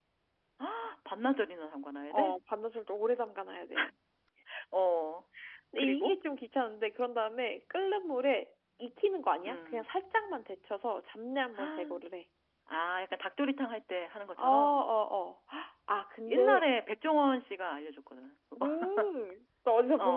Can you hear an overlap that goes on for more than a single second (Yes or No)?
No